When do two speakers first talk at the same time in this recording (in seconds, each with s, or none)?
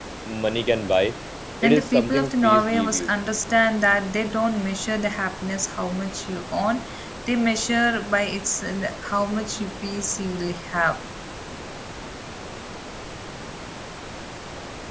1.6 s